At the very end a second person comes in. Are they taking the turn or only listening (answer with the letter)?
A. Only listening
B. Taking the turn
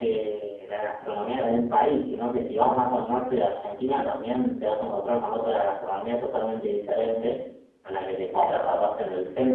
A